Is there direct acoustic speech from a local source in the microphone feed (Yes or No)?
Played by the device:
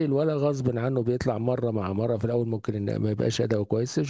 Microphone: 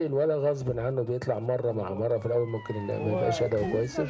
Yes